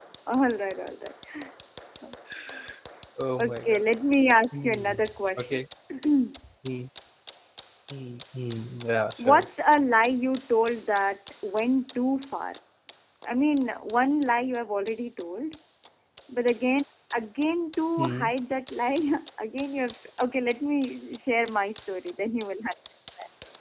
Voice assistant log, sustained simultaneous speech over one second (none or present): none